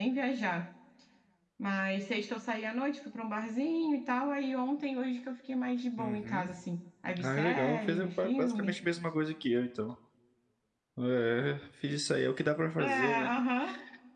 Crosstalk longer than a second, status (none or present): present